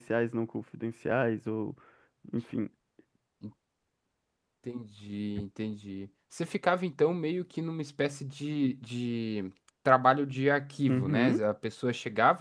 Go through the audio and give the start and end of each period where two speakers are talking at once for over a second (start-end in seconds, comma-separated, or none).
none